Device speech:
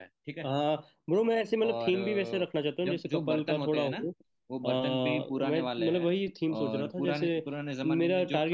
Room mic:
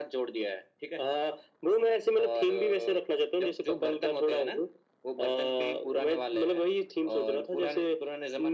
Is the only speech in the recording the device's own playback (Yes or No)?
Yes